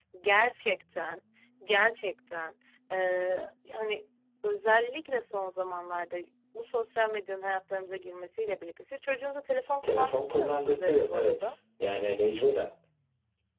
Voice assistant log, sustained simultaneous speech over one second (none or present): present